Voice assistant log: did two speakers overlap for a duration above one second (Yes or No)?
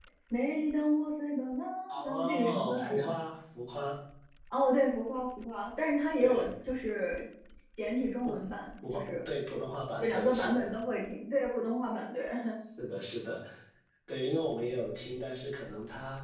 Yes